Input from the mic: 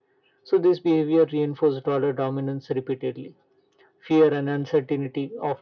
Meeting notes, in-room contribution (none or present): none